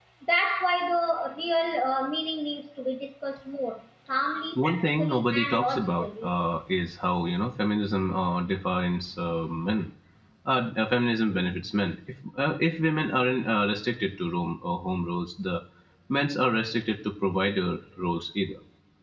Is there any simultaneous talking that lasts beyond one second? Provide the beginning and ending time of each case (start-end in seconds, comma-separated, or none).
4.6-6.3